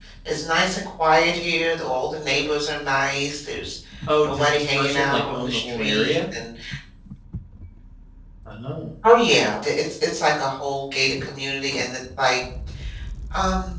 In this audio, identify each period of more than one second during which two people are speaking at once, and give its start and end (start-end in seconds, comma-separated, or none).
4.2-6.2